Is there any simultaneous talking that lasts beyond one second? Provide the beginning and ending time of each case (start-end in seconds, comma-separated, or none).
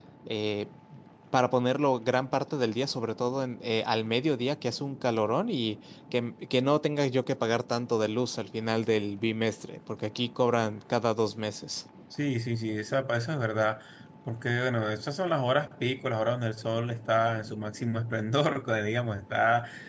none